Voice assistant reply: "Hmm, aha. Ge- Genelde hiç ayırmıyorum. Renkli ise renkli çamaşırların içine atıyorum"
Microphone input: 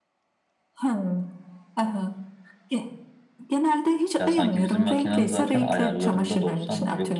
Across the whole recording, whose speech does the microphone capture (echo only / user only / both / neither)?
both